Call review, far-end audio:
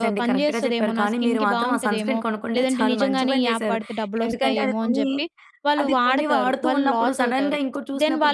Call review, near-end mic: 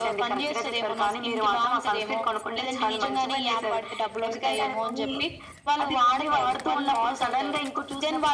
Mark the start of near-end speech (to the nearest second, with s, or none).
none